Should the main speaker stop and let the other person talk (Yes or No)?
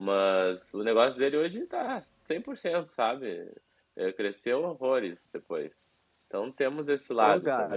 Yes